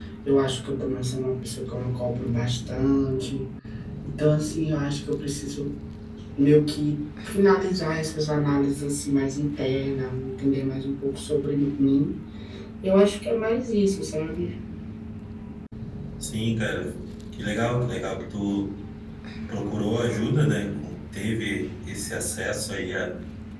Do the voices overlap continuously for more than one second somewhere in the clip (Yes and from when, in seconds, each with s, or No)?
No